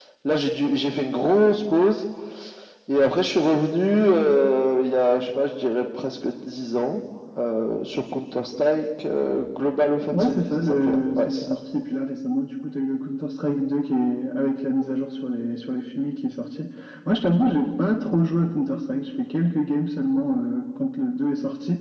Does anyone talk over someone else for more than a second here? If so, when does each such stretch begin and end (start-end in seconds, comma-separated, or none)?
10.1-11.5